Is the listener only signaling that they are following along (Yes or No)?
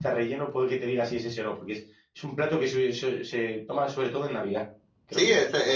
No